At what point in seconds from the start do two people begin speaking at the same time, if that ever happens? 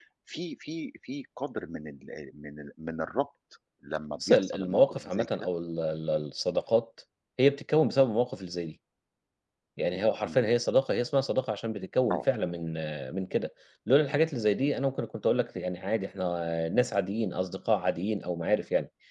4.2 s

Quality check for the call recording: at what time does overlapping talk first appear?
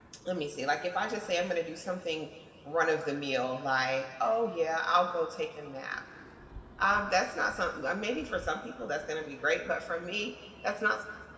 none

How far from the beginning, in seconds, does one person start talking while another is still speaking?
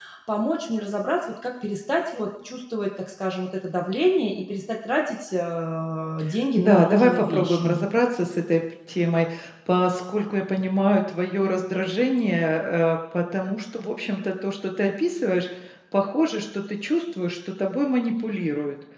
6.6 s

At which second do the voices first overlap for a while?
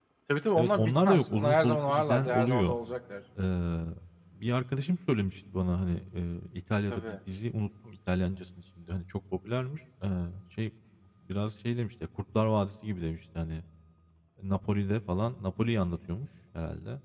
0.6 s

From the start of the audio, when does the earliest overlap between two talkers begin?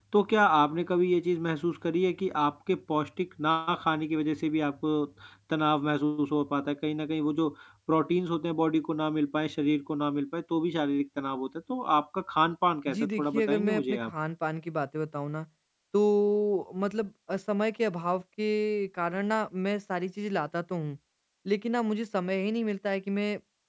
12.9 s

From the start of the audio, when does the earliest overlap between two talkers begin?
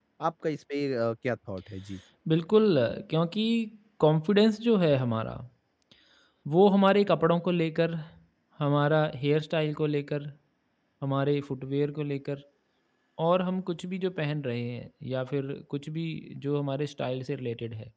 none

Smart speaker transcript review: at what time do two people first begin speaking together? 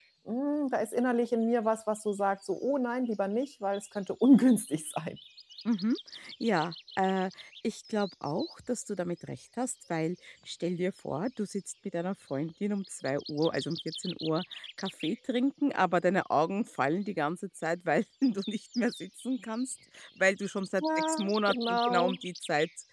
20.8 s

